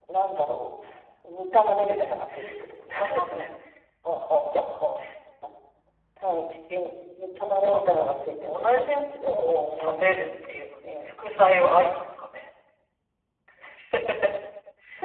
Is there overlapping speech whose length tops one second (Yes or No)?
Yes